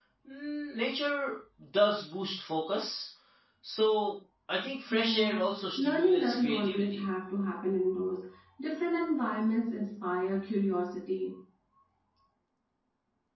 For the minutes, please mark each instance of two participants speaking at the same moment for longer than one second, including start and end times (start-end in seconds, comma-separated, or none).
4.9-7.0